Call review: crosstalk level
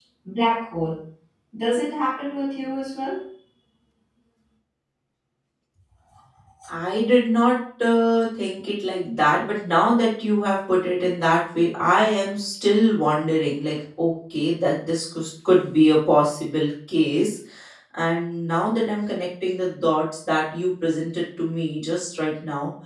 none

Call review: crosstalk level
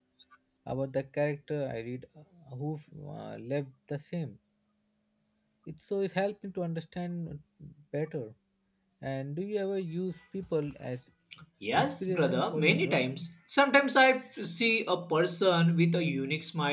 present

